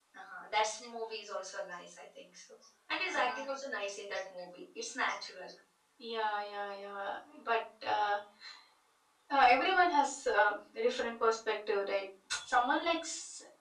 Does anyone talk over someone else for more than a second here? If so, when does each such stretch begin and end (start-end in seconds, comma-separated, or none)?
none